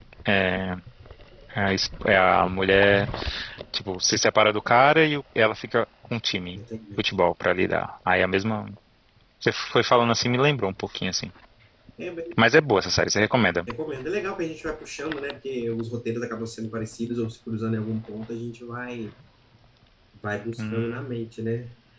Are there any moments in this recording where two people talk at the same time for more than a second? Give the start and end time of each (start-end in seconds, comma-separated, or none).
none